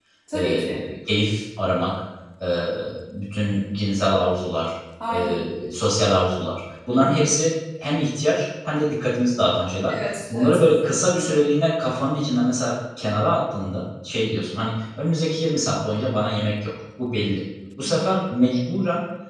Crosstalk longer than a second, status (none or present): present